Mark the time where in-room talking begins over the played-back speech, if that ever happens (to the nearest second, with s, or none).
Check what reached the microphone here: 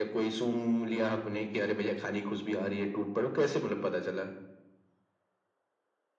none